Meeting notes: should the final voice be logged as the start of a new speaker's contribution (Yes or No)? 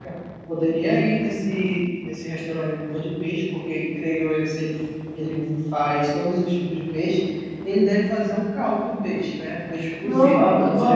Yes